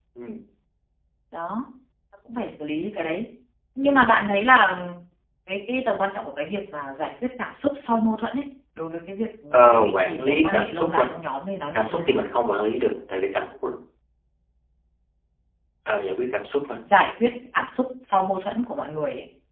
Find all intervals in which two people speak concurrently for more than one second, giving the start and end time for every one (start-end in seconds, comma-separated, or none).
9.5-11.1